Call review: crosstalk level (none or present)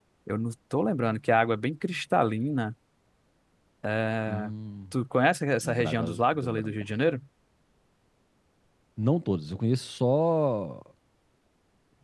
present